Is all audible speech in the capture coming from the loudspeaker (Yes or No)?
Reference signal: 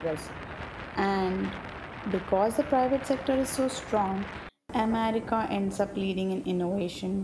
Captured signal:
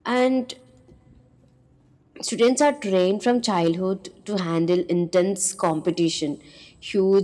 No